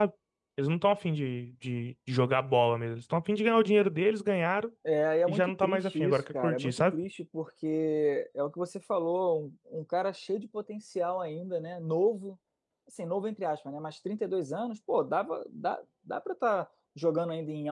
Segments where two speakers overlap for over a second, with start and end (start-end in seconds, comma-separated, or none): 5.3-7.0